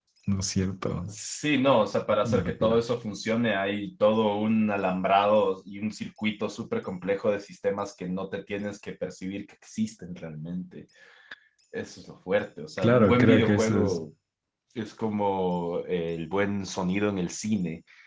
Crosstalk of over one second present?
Yes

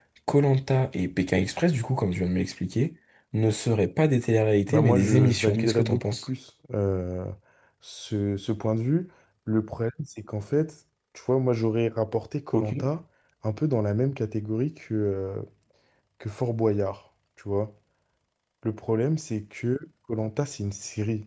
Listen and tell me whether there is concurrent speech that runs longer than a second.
Yes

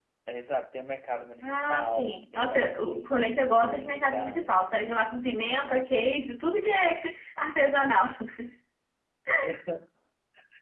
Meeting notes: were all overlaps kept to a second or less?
No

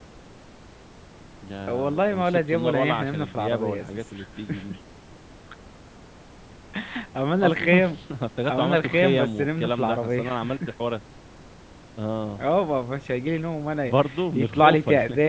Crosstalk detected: Yes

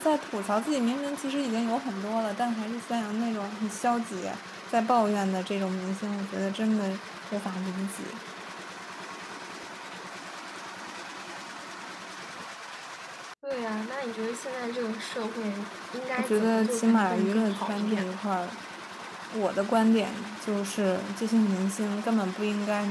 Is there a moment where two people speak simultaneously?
Yes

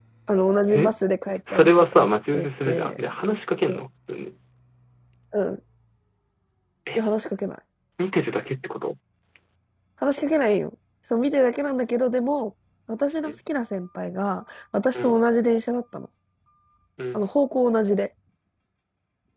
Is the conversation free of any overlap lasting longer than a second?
No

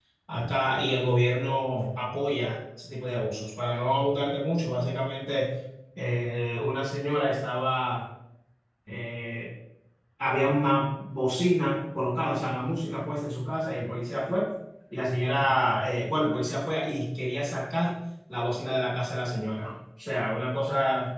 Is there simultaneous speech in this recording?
No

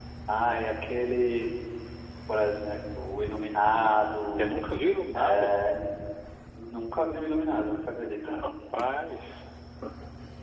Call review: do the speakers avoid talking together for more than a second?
Yes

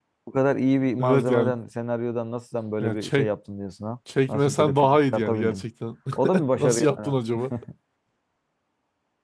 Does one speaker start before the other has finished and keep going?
Yes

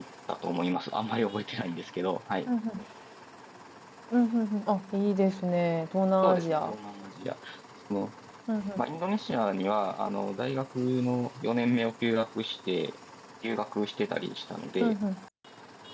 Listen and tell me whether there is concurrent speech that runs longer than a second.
No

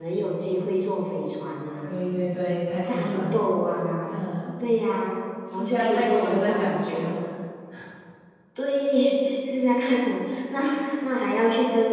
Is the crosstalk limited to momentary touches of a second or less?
No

